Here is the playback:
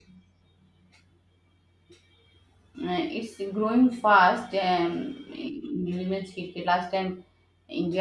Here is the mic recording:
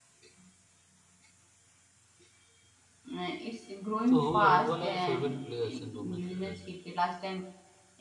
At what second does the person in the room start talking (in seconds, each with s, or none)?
4.0 s